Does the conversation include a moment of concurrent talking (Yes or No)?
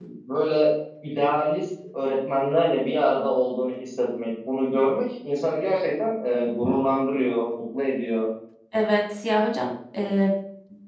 No